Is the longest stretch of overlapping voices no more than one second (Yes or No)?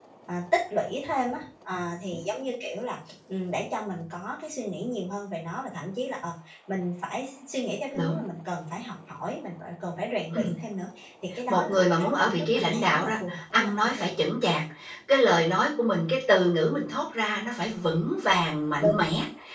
No